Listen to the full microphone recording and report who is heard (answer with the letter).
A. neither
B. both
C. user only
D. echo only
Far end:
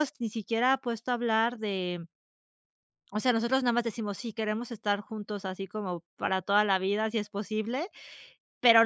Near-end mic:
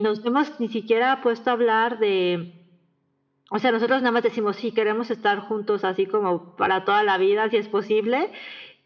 D